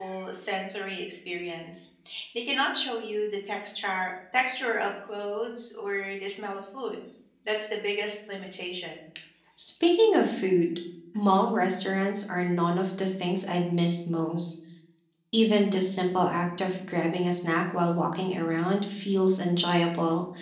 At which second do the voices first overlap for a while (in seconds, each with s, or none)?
none